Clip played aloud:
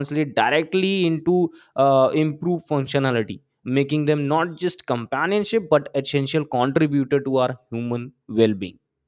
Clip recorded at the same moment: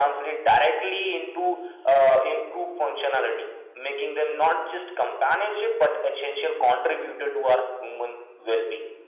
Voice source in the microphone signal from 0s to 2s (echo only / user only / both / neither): echo only